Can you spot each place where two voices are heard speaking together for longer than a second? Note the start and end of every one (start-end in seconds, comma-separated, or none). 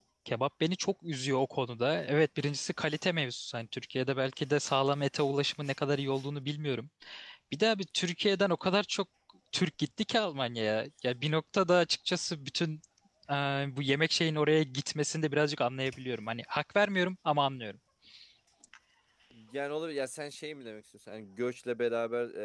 none